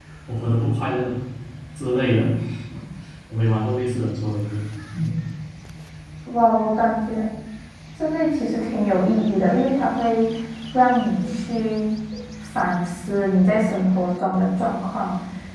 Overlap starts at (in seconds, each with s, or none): none